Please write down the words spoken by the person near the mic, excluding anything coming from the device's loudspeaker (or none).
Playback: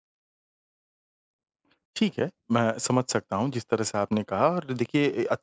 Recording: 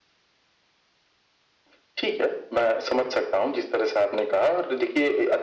none